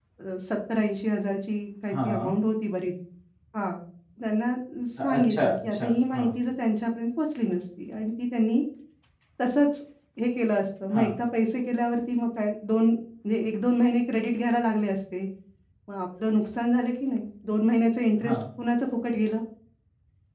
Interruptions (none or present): present